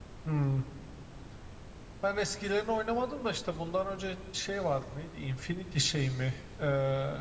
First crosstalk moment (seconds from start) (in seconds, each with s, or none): none